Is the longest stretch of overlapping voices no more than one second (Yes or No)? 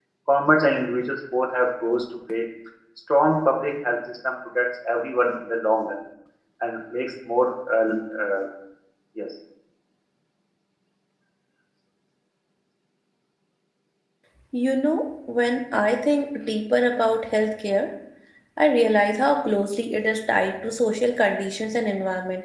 Yes